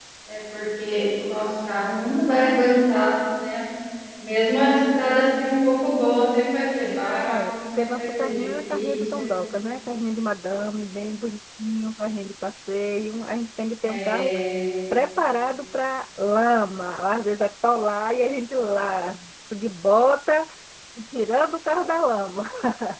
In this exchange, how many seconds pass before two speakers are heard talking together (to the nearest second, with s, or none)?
7 s